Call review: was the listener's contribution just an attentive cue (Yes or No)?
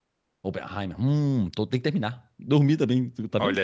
No